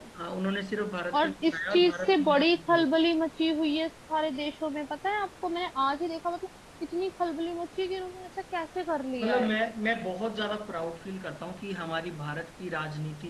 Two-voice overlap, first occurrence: 1.2 s

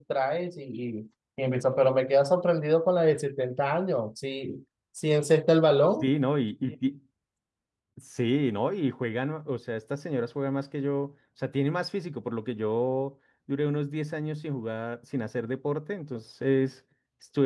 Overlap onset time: none

